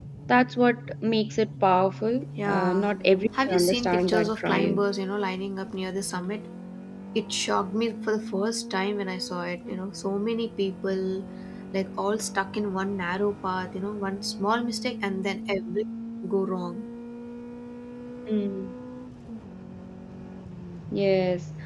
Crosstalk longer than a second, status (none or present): present